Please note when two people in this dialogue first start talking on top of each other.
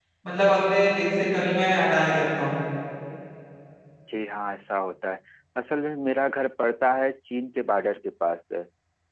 none

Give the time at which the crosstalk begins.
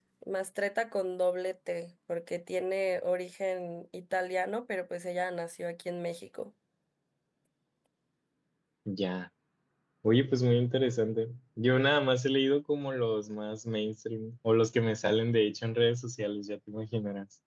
none

